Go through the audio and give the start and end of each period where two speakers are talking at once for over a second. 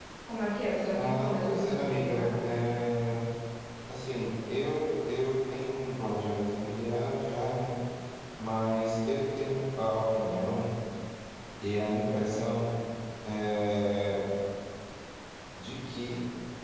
1.0-2.3

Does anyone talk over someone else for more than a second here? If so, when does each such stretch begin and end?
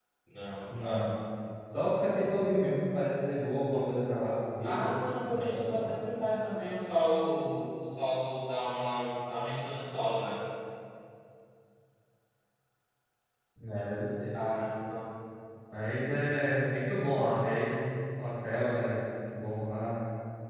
4.6-5.9

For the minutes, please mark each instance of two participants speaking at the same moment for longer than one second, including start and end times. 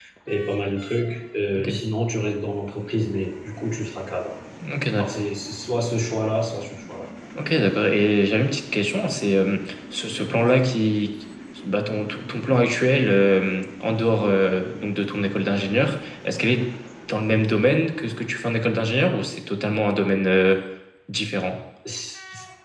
none

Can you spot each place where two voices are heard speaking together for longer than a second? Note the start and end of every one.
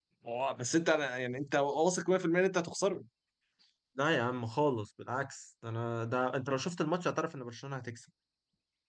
none

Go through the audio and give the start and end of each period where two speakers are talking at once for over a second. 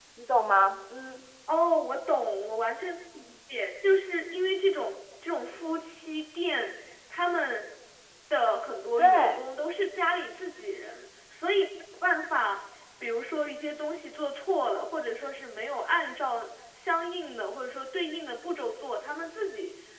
none

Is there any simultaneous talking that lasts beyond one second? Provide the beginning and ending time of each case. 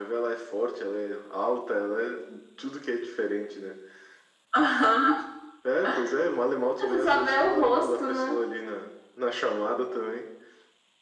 6.8-8.4

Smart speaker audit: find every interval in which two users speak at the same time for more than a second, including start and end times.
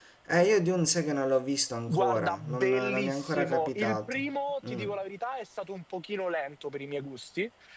1.9-4.2

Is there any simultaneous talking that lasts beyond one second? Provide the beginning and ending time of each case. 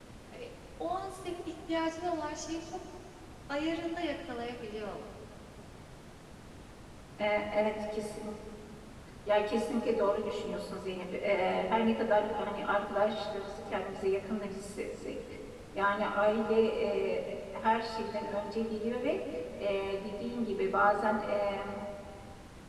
none

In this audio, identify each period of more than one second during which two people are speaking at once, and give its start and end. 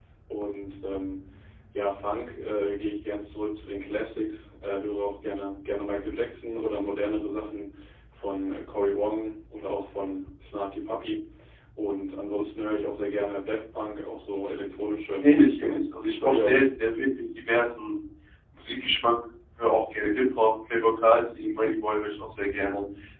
15.2-16.6

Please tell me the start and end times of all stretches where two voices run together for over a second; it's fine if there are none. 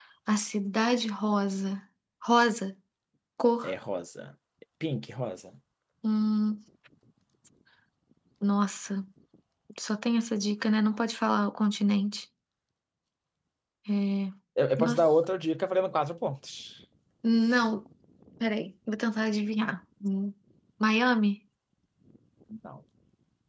none

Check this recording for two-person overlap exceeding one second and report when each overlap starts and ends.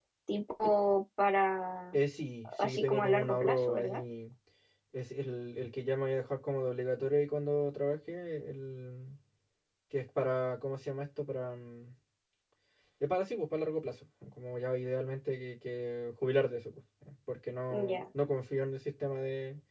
2.6-4.0

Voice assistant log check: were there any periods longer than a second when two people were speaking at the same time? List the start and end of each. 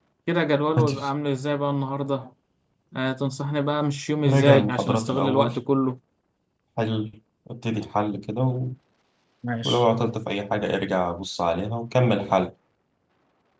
4.3-5.5

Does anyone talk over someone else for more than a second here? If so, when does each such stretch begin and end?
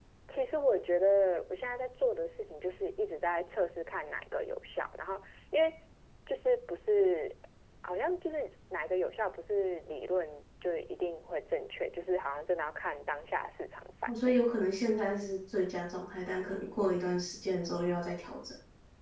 none

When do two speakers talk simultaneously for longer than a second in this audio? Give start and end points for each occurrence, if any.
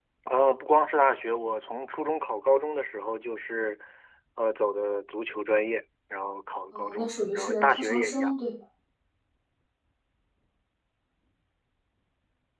6.7-8.3

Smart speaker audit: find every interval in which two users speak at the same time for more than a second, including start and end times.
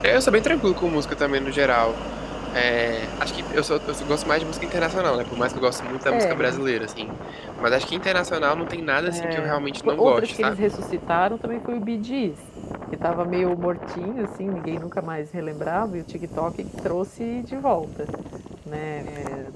9.4-10.7

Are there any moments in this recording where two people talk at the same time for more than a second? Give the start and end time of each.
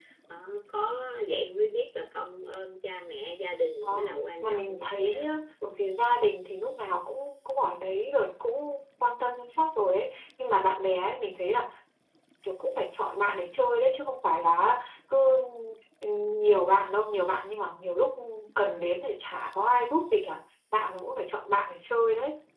3.8-5.3

